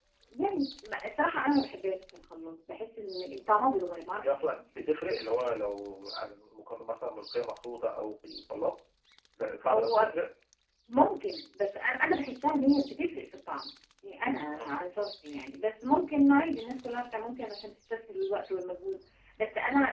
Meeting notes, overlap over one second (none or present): none